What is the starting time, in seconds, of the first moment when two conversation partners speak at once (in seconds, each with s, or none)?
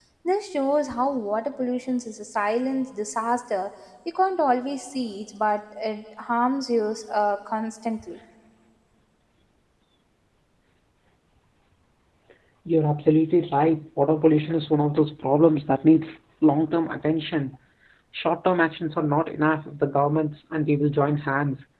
none